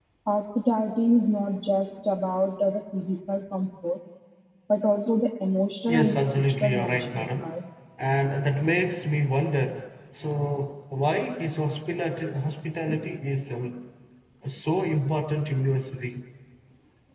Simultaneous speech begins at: 5.9 s

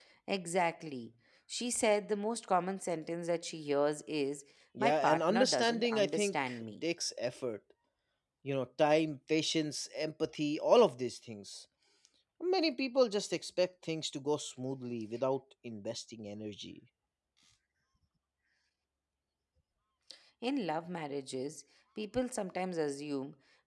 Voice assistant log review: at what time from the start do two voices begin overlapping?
4.8 s

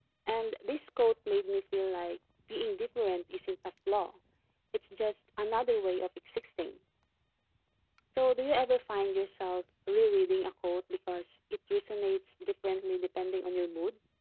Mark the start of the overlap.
none

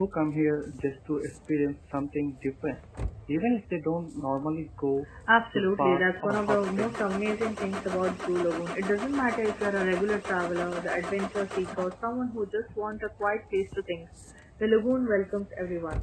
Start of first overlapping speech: 5.5 s

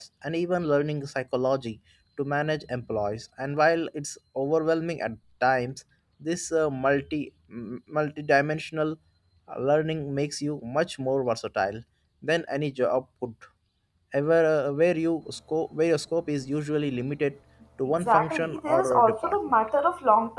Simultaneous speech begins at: 18.0 s

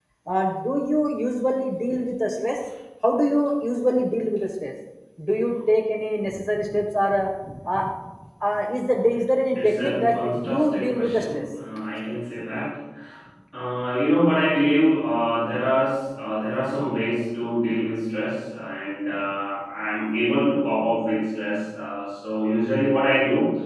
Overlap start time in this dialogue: 9.6 s

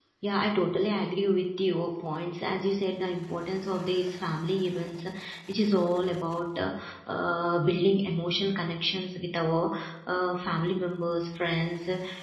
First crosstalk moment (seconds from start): none

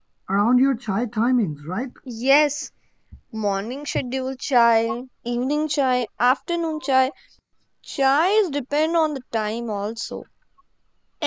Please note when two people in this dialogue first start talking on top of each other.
none

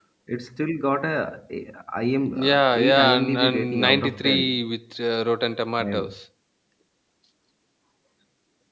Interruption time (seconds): 2.3 s

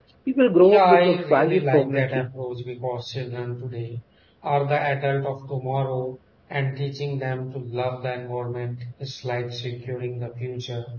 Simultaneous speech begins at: 0.6 s

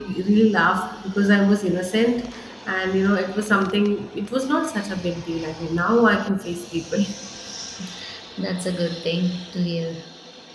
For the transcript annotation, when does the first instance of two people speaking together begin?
none

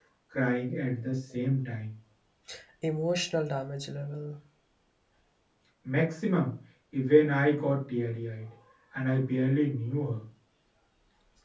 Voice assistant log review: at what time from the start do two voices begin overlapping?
none

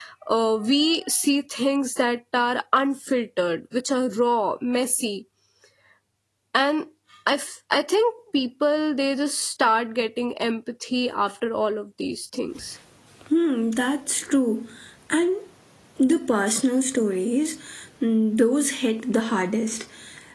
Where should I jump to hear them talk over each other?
none

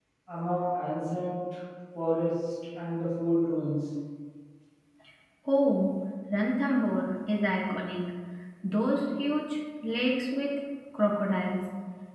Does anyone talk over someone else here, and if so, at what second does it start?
none

